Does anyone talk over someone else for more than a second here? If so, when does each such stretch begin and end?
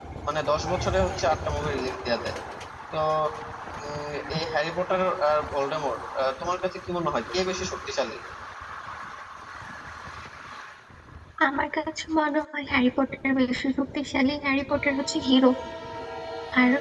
none

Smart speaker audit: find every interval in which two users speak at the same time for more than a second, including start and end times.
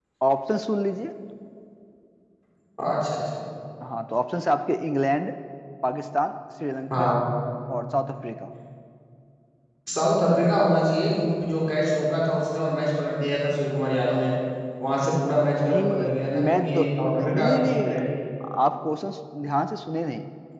16.4-17.9

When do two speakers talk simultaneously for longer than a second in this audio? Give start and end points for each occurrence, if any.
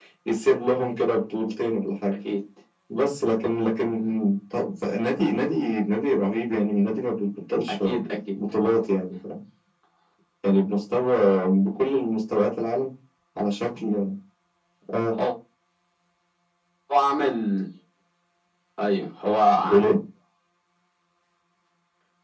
none

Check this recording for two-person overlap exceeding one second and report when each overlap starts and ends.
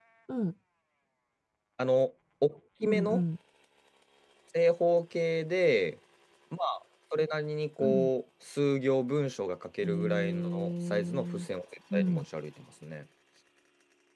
9.8-11.5

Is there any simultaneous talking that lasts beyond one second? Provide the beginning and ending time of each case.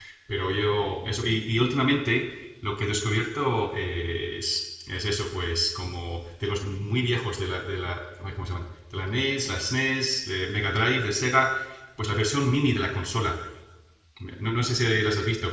none

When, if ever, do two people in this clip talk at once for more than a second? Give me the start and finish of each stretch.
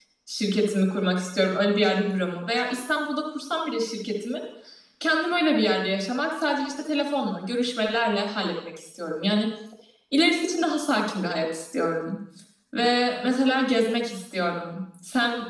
none

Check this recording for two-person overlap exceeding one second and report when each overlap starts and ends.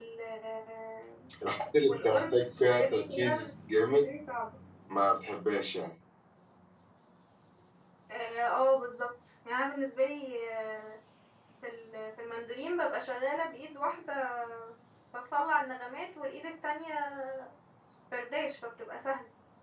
1.9-3.3

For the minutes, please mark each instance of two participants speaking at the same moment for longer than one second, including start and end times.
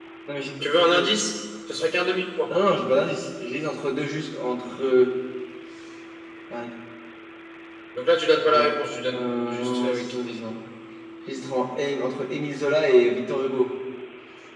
9.1-10.4

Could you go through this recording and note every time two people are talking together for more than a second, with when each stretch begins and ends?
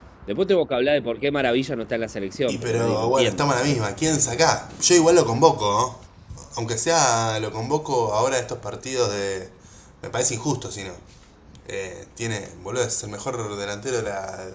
2.5-3.9

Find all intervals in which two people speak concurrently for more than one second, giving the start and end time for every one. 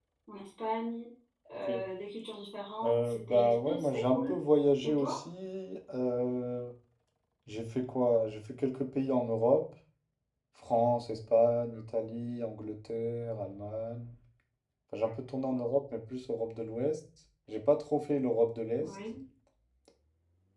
2.8-4.4

